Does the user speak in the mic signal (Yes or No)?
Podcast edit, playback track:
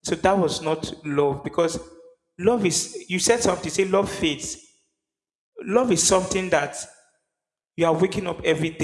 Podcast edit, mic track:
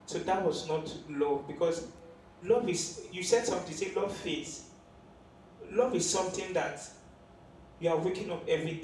No